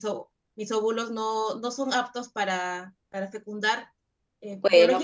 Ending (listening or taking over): listening